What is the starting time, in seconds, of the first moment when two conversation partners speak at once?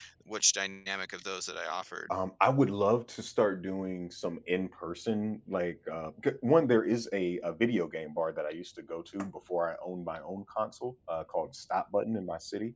none

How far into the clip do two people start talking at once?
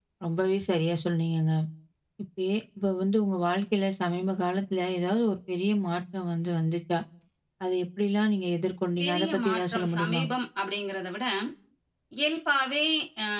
9.0 s

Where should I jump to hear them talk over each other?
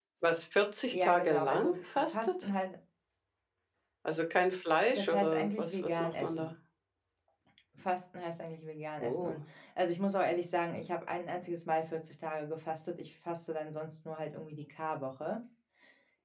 0.9 s

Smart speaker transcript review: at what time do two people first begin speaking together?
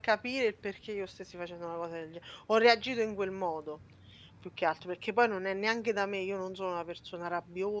none

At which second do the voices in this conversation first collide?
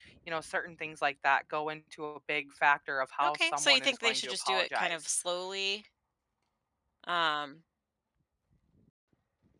3.2 s

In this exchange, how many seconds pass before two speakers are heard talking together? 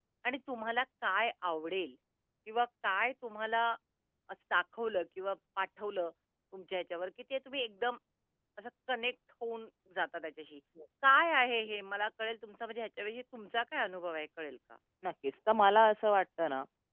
none

